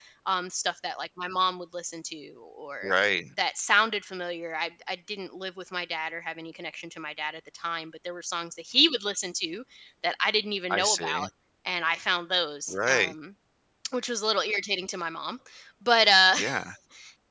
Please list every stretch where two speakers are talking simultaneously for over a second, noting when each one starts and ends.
none

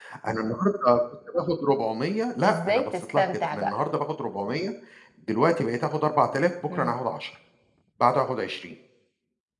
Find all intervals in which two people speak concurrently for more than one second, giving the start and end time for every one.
2.5-3.7

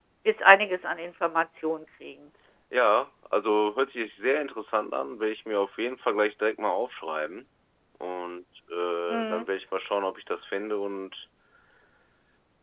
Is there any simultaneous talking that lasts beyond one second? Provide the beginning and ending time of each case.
none

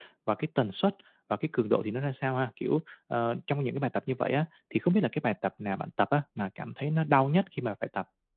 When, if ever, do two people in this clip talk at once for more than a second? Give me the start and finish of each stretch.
none

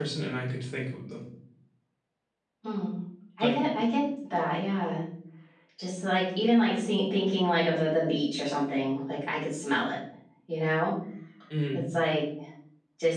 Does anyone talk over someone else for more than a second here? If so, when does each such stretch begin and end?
none

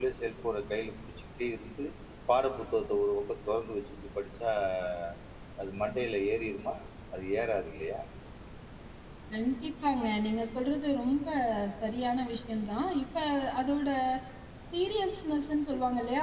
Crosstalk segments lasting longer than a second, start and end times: none

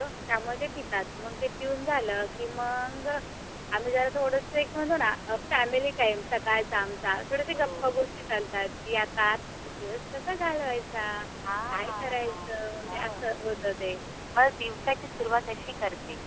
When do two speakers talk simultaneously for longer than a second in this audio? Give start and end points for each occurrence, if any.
11.7-13.2

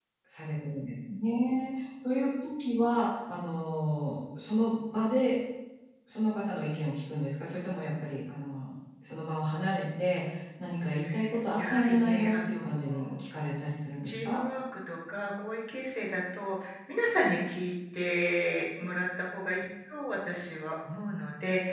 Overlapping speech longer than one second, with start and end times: 11.6-13.2

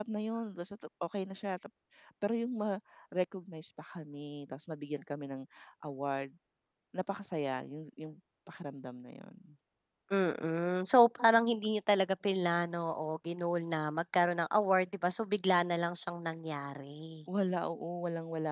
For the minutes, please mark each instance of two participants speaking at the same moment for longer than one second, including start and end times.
none

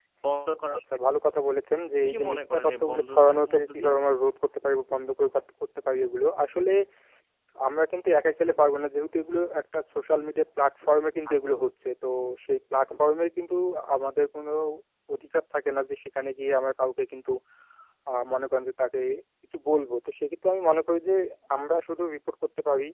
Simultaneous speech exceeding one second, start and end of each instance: 2.1-3.9

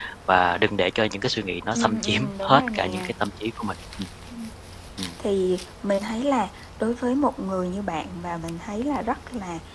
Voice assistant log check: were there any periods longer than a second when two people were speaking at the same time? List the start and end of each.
1.8-3.1

